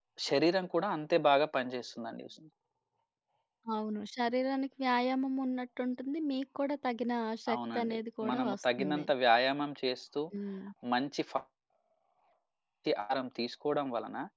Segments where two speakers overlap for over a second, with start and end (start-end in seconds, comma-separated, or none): 7.5-9.1